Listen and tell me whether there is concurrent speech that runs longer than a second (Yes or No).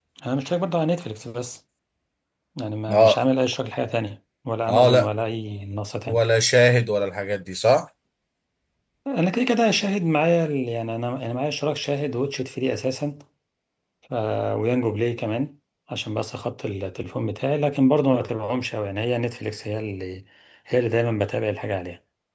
No